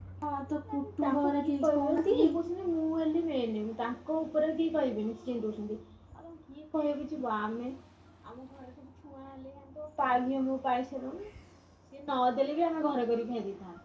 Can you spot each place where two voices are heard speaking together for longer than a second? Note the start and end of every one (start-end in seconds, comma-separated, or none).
0.7-2.2